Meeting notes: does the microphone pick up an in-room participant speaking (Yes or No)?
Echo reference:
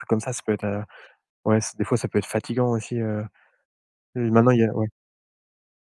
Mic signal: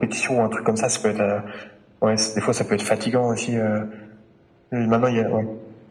No